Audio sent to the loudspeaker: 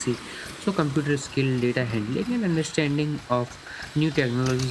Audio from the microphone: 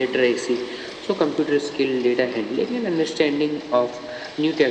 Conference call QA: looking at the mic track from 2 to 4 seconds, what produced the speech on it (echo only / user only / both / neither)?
echo only